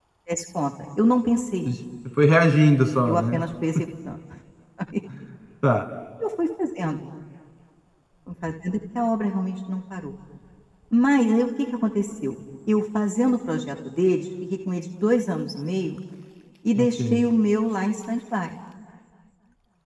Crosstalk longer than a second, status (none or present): none